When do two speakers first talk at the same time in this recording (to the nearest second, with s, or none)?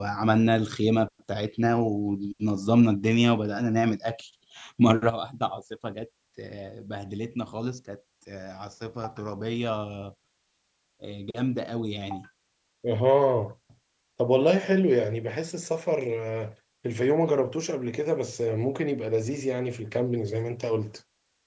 none